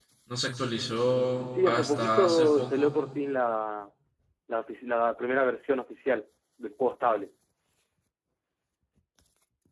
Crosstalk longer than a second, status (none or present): present